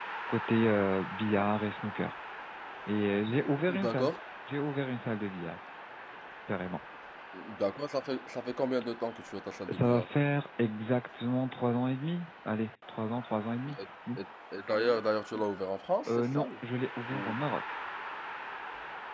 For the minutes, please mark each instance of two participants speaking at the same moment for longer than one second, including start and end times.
none

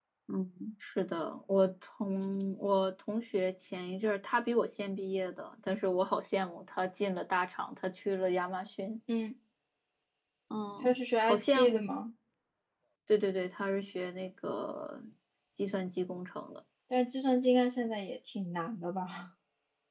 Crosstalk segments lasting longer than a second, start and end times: 10.8-12.0

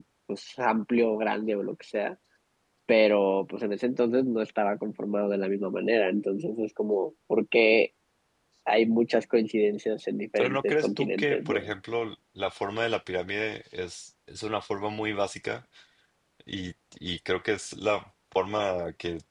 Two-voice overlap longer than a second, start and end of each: 10.4-11.7

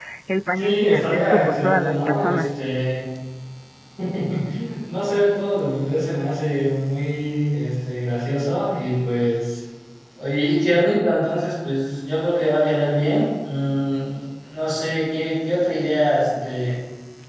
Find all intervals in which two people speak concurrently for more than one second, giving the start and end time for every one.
0.6-2.4

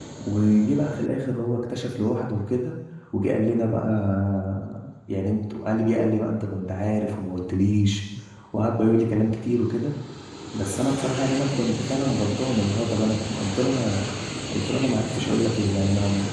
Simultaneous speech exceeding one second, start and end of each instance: none

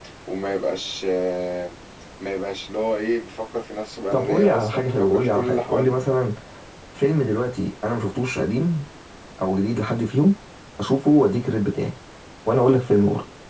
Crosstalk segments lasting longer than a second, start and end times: 4.1-5.9

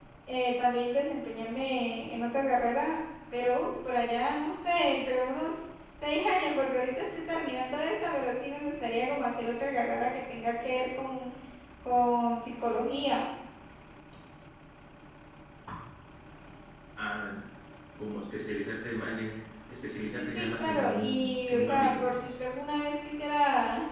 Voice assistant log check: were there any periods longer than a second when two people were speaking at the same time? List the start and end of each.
20.1-22.2

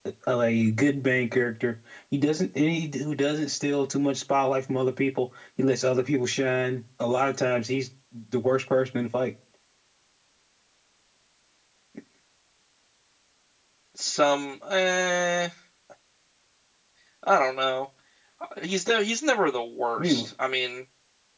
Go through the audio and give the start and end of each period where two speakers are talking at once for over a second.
none

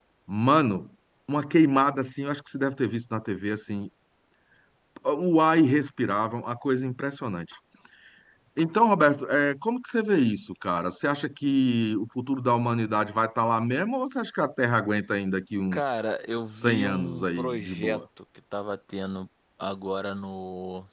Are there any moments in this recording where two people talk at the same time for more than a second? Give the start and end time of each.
16.5-18.0

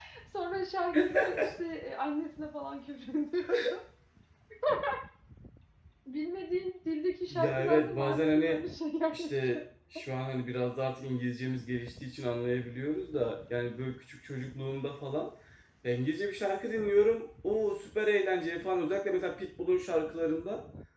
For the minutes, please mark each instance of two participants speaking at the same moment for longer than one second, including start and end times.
7.3-8.6

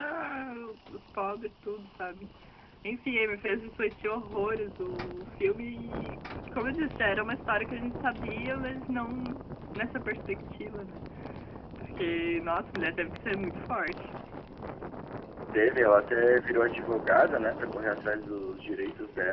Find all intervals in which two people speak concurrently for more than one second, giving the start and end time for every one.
none

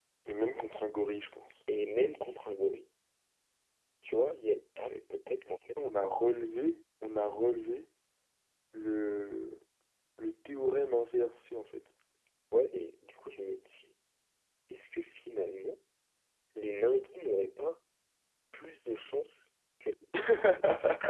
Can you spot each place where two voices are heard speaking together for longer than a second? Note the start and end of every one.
none

